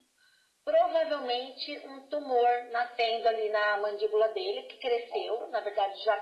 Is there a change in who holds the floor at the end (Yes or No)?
No